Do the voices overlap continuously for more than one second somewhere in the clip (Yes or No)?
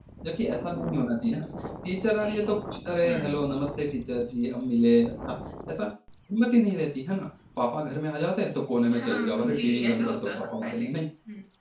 Yes